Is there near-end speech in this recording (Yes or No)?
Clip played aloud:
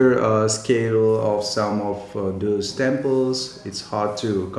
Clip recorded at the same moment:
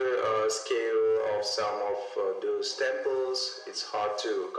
No